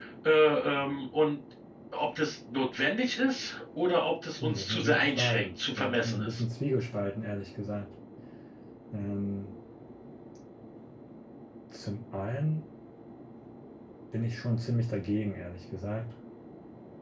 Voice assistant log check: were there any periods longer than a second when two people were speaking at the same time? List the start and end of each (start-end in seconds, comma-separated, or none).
4.4-6.4